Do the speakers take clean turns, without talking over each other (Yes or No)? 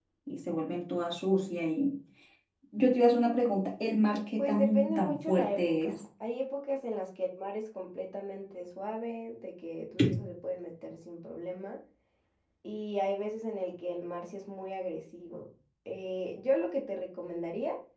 No